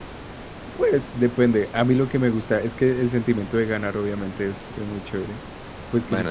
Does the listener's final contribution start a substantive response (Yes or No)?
No